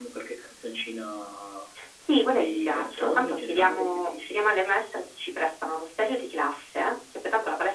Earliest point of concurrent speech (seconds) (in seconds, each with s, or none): 2.3 s